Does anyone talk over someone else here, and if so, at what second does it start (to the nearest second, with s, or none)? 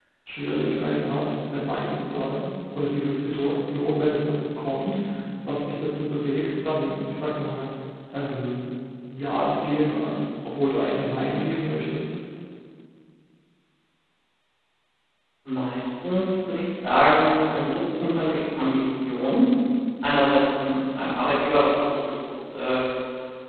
none